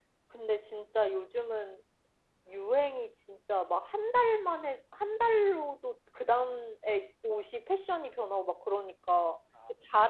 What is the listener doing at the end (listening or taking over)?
listening